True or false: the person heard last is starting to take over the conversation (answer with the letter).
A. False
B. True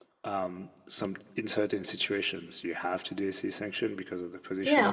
B